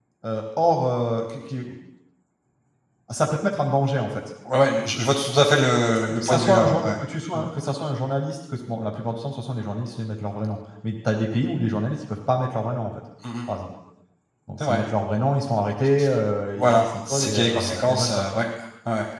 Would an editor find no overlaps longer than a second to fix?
No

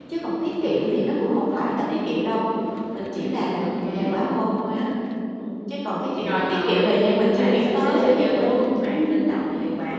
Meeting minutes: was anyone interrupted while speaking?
Yes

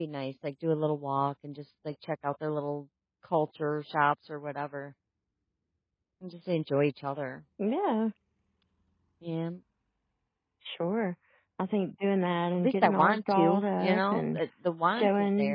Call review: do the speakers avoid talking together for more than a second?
No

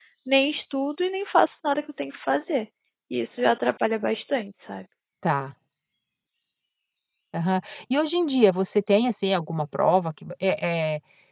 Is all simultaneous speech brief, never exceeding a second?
Yes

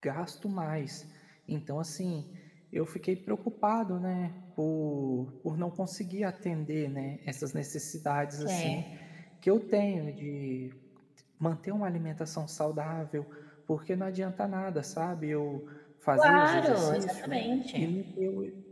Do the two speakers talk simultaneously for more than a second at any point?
Yes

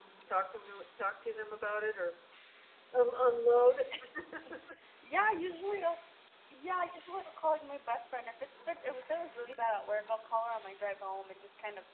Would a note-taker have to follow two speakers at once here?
No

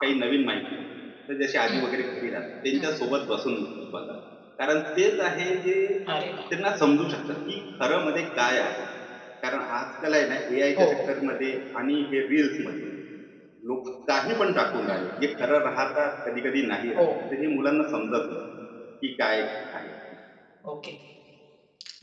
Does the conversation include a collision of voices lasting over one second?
No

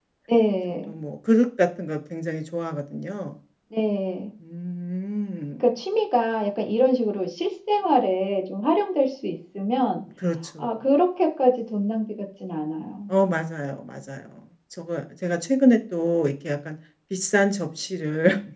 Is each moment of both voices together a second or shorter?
Yes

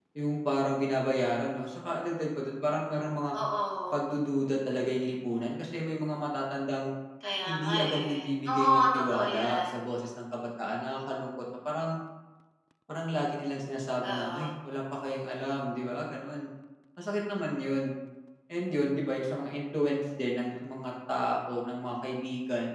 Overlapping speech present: Yes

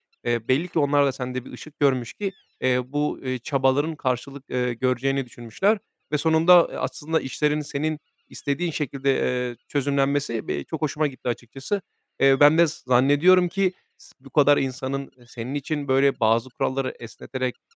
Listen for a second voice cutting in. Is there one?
No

